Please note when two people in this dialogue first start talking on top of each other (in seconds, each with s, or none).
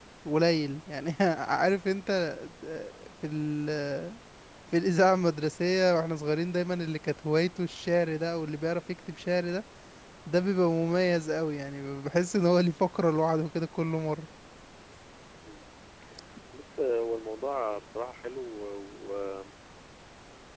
none